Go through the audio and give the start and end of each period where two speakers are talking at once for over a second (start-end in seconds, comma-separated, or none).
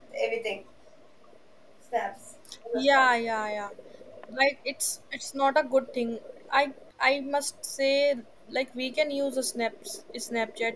none